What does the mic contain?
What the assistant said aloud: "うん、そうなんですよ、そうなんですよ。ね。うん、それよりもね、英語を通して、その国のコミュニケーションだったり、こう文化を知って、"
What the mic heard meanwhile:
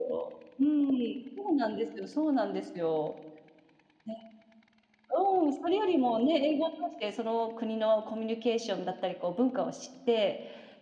echo only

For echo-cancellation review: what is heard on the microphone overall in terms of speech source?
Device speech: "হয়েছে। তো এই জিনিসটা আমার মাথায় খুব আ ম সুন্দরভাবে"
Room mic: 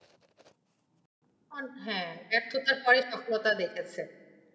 user only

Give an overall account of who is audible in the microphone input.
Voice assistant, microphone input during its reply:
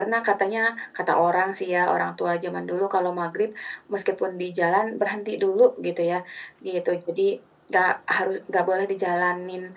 echo only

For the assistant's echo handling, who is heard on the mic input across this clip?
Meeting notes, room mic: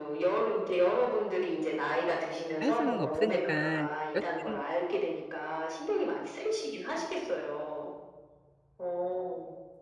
both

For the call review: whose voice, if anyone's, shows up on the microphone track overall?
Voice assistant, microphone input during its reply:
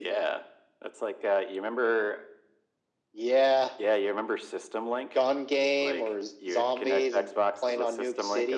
echo only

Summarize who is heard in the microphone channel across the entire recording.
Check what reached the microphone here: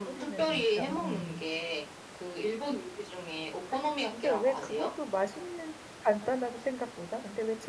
both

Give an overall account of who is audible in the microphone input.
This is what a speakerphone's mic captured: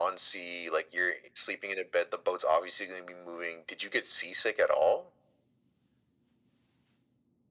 echo only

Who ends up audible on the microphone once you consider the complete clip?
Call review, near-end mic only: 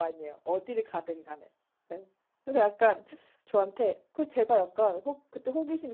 user only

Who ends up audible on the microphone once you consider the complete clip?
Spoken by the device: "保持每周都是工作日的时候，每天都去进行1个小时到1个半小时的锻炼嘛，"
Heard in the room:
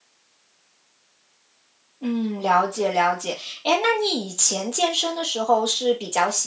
user only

